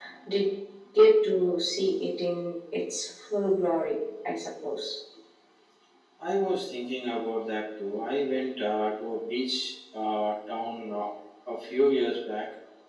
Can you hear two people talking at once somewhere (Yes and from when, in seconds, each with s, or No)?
No